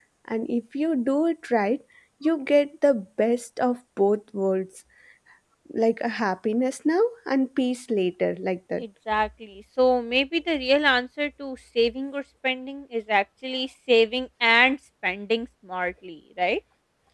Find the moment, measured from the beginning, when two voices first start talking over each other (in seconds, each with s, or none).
none